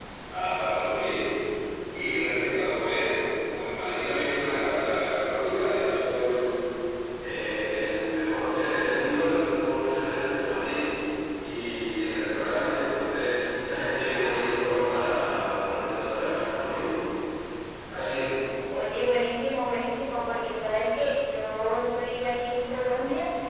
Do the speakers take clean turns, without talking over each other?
Yes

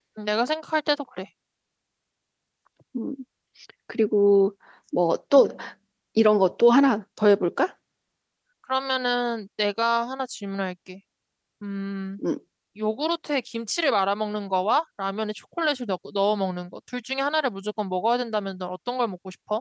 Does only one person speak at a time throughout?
Yes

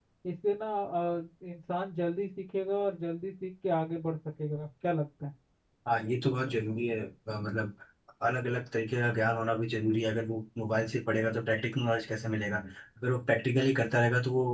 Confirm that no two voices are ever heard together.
Yes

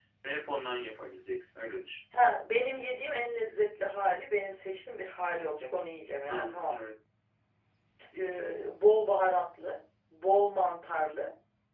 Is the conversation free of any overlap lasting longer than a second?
Yes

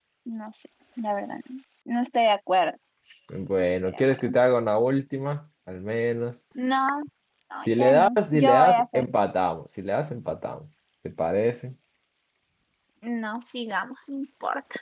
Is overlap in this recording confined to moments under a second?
No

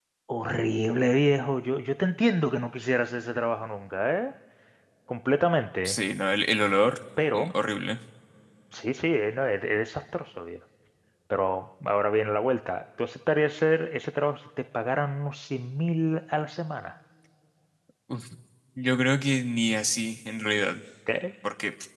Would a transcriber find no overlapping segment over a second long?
Yes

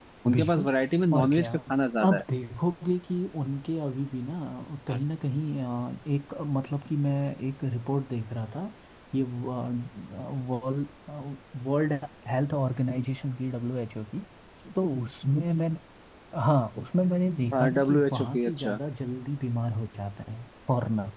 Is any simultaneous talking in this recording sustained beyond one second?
Yes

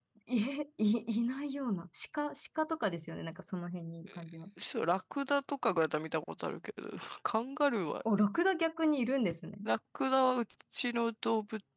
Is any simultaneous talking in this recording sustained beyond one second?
No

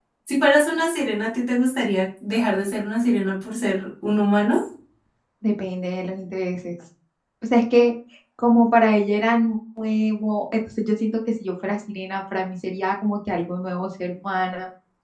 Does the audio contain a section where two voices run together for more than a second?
No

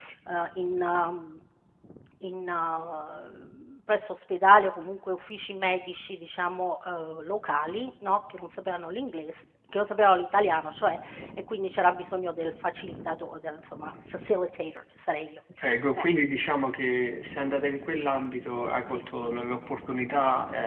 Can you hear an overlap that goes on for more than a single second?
No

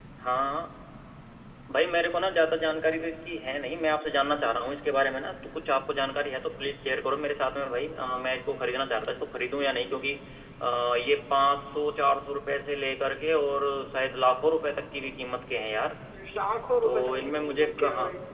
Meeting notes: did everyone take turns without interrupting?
No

